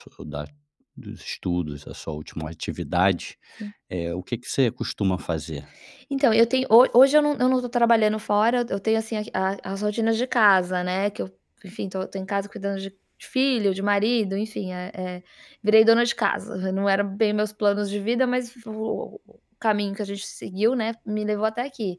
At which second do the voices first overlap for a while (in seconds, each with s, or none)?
none